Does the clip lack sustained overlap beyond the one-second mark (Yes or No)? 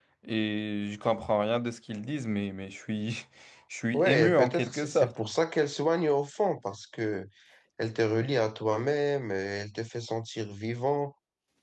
No